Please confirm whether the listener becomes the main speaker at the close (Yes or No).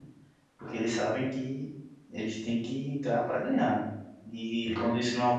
No